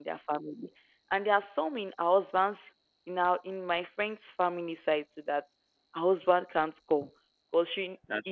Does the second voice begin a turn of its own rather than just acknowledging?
No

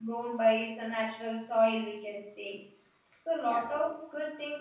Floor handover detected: No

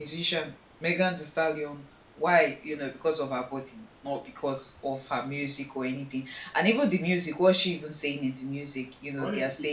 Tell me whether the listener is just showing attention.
Yes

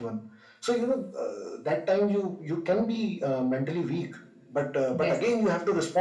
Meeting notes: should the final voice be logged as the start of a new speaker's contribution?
No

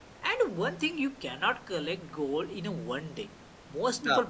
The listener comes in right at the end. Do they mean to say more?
No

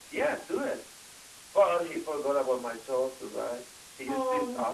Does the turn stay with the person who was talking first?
Yes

